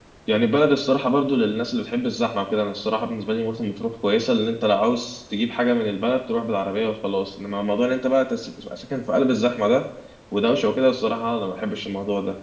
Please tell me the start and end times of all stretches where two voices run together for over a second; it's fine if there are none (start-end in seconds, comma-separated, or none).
none